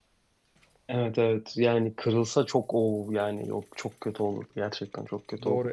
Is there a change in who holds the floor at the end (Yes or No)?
Yes